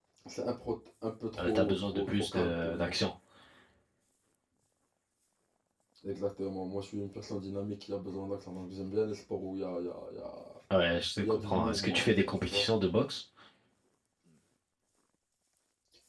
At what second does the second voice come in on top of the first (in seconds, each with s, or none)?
1.4 s